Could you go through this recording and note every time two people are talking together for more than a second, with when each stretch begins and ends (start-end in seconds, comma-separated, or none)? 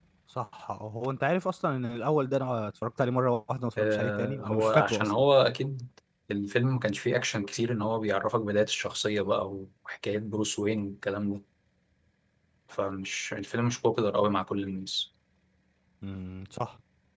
3.8-5.1